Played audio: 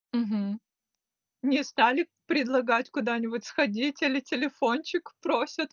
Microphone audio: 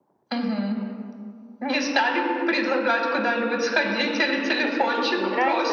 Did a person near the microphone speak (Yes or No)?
Yes